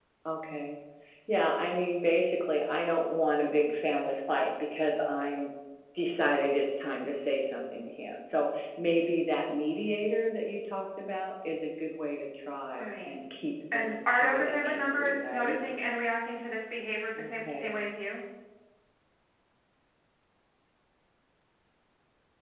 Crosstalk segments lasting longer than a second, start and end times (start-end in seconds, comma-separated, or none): 13.7-15.6